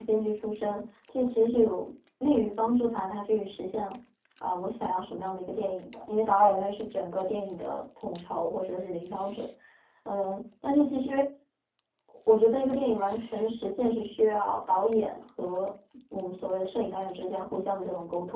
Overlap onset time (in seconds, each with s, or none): none